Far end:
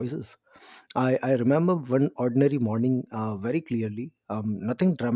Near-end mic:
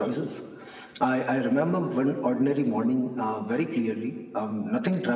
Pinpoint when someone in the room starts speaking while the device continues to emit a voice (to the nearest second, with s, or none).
none